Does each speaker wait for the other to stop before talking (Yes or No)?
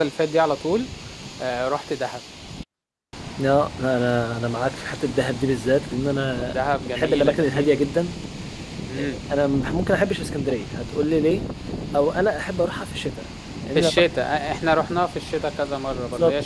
No